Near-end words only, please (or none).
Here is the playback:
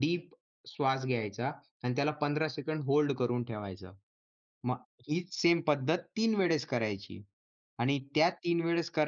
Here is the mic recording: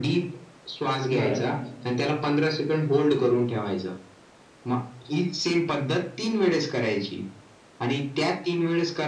बरं.